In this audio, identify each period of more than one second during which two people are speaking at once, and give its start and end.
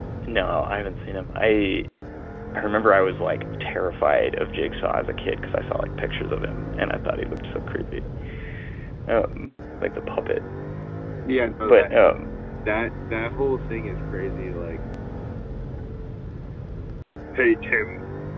none

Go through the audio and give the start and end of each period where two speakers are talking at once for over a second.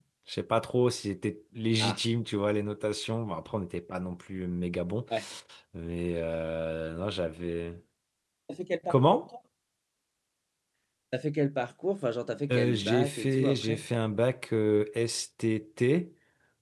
12.5-13.9

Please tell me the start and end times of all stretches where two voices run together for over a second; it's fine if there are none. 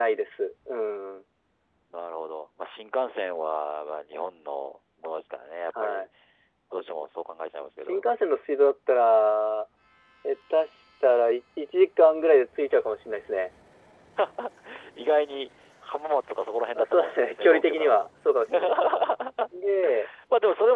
16.8-18.1

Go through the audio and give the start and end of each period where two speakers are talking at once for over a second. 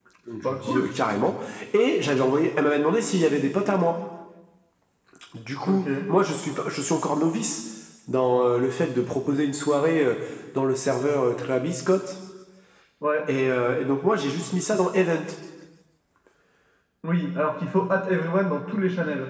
none

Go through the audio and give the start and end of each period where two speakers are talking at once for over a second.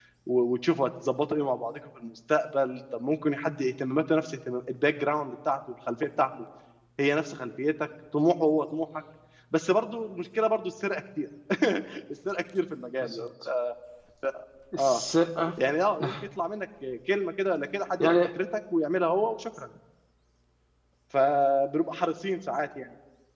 none

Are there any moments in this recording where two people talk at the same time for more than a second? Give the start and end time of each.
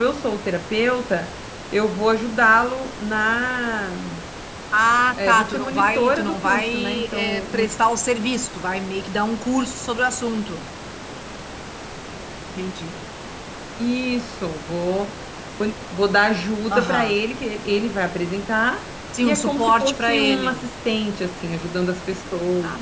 5.2-7.7, 19.2-20.7

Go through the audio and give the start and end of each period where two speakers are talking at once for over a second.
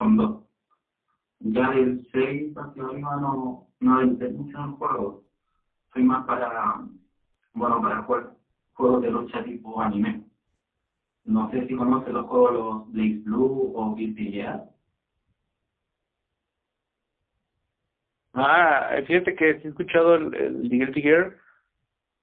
none

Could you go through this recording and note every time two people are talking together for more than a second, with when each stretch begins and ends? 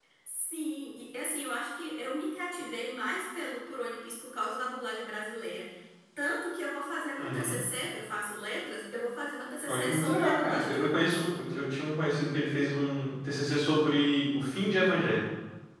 9.7-11.2

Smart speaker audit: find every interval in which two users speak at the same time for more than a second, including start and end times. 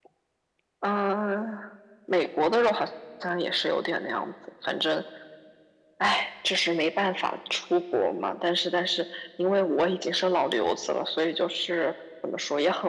none

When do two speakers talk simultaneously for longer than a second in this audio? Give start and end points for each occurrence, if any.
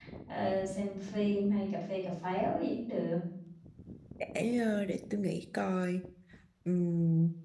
none

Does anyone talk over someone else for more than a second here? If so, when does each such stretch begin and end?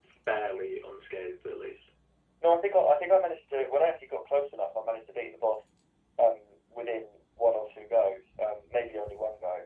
none

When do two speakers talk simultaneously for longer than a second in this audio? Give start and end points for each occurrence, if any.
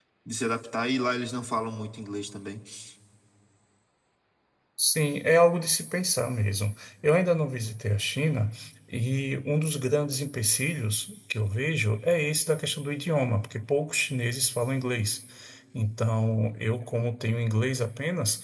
none

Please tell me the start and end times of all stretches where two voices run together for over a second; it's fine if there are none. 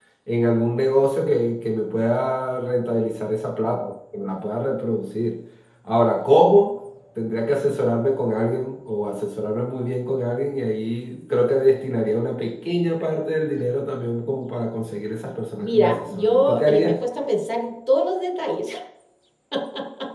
15.6-17.0

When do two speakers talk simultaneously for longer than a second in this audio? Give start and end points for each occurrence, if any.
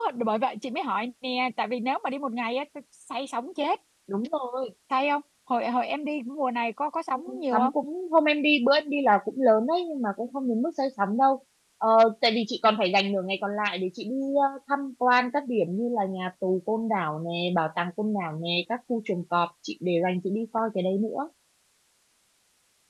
none

